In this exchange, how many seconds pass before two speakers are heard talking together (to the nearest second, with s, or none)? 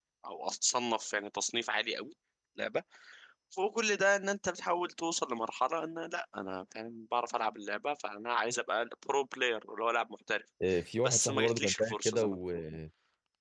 11 s